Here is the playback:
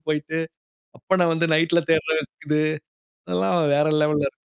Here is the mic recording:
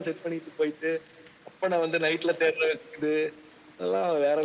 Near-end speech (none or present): none